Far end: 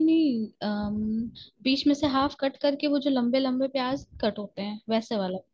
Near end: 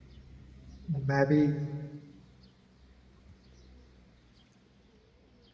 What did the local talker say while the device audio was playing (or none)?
मैं भी